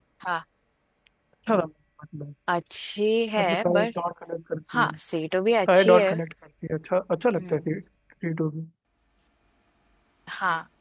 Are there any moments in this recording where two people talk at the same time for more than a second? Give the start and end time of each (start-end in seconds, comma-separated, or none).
none